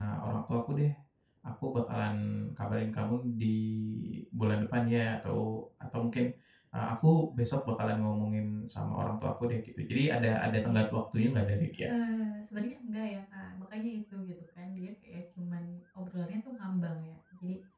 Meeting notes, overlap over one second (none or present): none